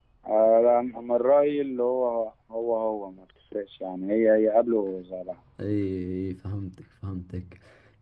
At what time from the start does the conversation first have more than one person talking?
none

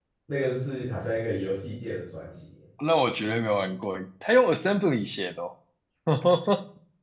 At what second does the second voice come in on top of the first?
none

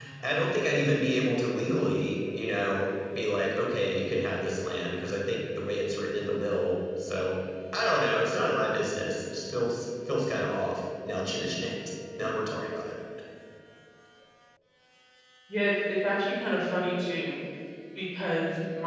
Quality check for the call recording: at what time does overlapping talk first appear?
none

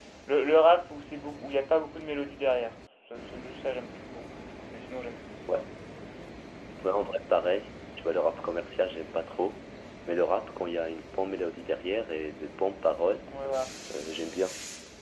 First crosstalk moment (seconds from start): none

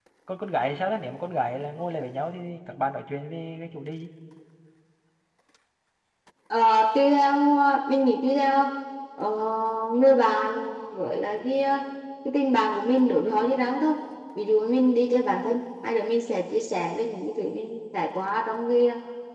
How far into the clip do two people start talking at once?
none

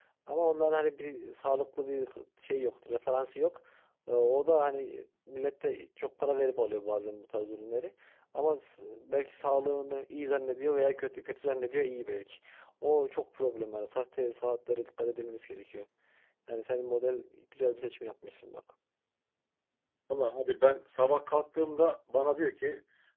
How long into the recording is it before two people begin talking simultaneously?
none

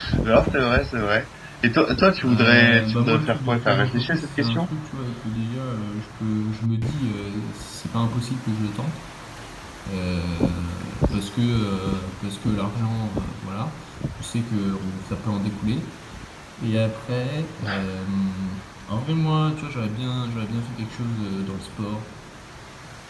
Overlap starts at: 2.2 s

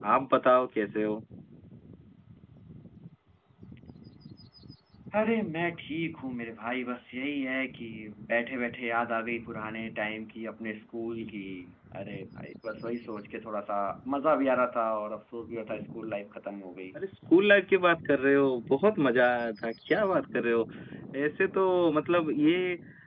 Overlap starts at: none

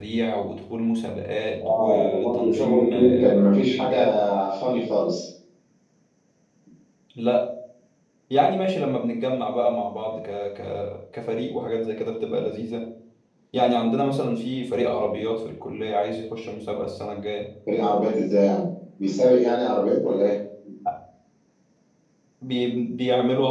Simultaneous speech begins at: 1.6 s

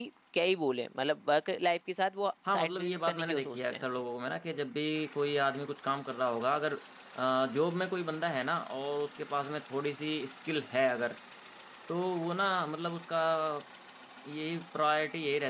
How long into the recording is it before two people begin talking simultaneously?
2.5 s

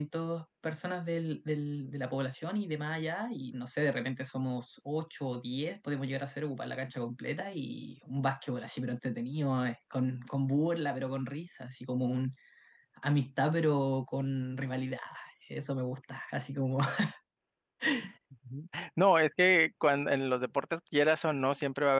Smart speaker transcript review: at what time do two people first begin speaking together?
none

